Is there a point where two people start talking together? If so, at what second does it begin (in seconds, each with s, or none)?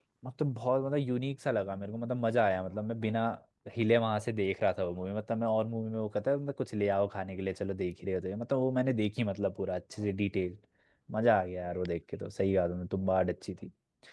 none